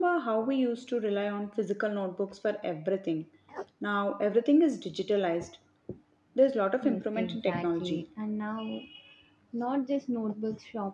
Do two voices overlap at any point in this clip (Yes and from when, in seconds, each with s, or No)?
Yes, from 6.8 s